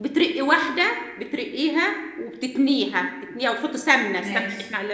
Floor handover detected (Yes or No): No